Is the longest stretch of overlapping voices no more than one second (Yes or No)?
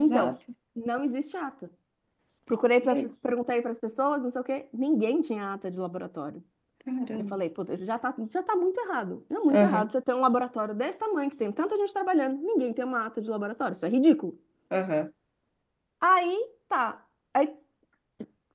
Yes